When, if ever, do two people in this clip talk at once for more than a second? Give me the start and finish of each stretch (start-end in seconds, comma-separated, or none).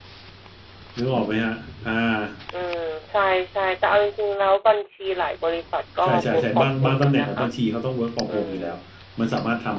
6.0-7.4